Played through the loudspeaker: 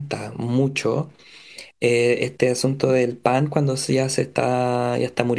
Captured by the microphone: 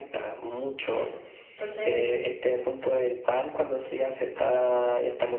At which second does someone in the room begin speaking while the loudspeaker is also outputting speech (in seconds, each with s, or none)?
0.9 s